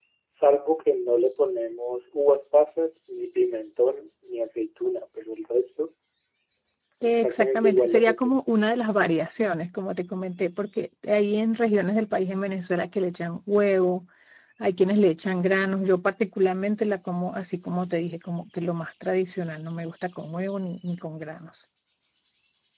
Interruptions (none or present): present